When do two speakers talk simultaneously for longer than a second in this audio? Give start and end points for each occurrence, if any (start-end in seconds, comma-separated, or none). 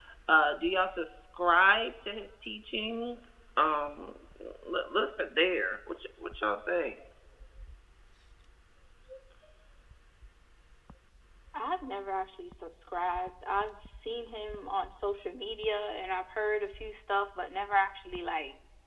none